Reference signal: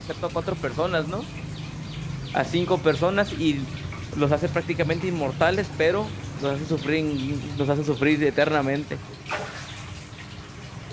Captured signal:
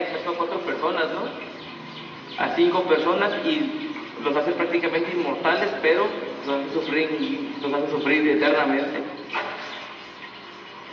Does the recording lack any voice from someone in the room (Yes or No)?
Yes